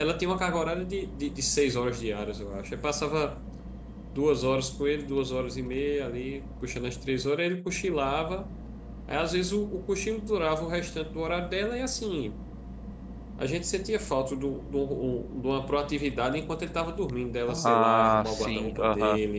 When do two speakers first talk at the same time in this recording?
17.5 s

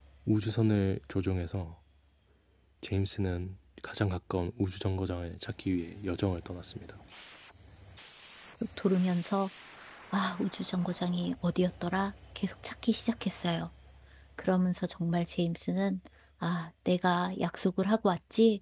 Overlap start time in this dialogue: none

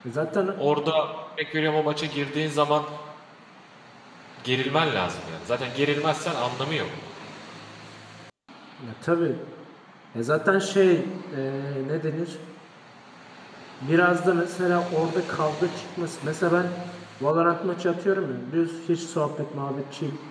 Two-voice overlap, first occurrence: none

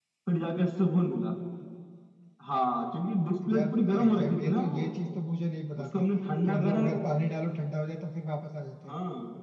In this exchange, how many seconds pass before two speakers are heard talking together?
3.5 s

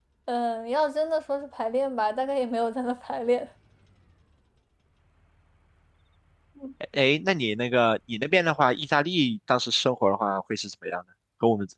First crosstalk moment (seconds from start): none

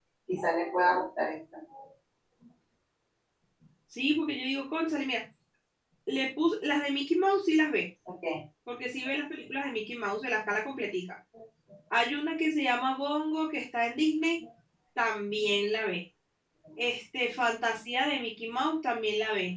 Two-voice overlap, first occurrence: none

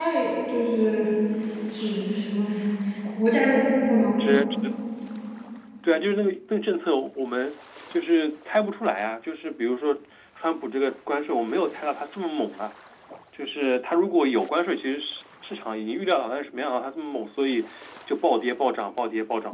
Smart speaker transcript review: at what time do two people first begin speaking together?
none

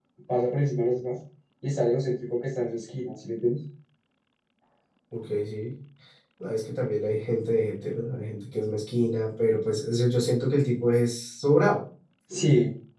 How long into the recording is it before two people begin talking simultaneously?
none

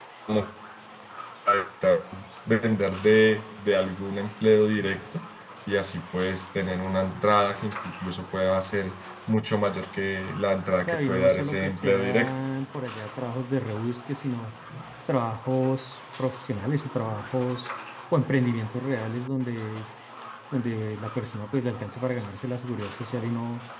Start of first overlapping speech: 10.9 s

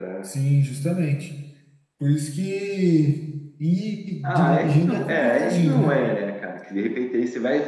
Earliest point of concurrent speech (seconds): 4.2 s

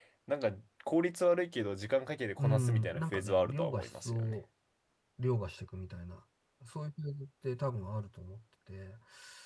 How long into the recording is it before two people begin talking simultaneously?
2.4 s

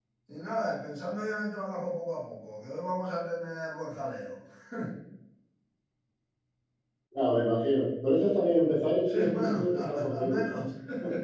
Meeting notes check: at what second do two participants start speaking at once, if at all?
9.0 s

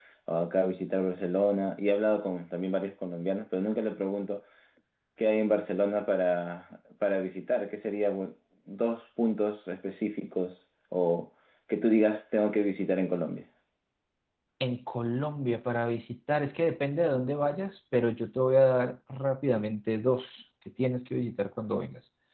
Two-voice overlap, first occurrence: none

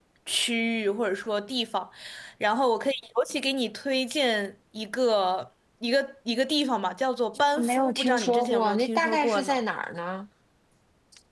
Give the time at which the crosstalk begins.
7.3 s

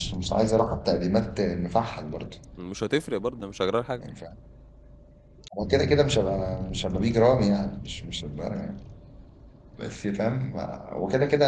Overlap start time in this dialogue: none

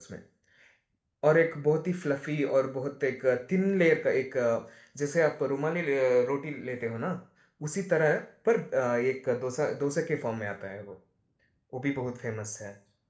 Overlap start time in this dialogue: none

